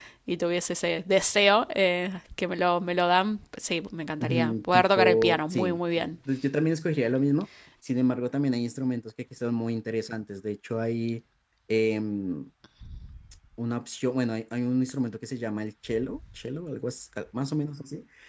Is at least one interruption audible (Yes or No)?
Yes